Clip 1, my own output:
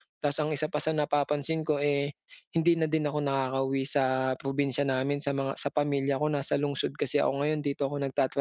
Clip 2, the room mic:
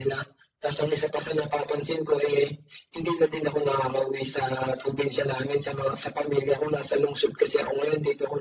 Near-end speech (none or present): none